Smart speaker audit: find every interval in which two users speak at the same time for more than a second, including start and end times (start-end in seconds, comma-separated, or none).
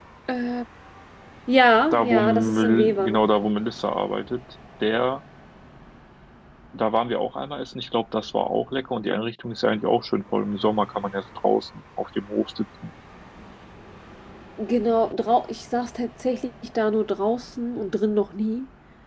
1.9-3.1